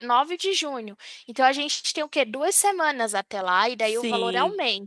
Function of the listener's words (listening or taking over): taking over